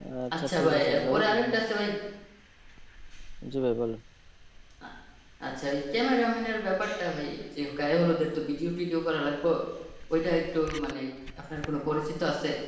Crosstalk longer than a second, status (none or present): present